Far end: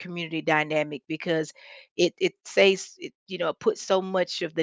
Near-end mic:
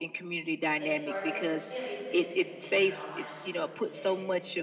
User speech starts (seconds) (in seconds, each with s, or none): 0.8 s